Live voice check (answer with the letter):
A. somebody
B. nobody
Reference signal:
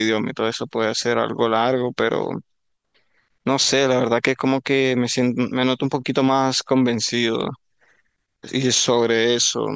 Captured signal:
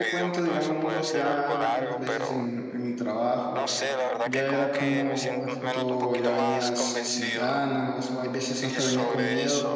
A